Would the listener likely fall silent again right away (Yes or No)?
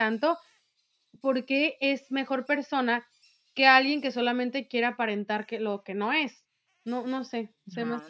No